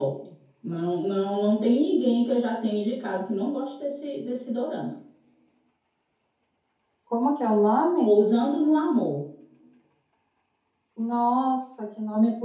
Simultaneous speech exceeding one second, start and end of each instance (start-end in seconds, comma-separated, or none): none